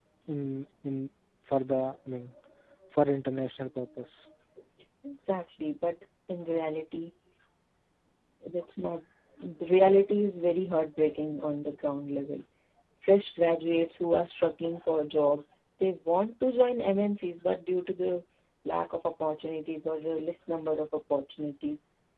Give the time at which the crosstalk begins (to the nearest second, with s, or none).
none